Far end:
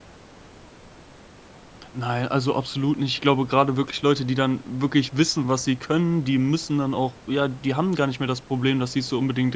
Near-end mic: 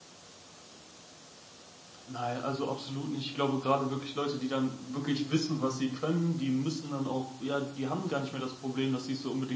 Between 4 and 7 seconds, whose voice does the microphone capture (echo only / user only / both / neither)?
echo only